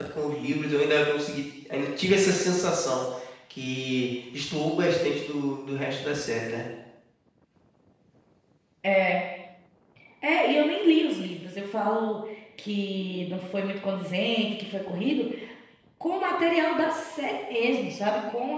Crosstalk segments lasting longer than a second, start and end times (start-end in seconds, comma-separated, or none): none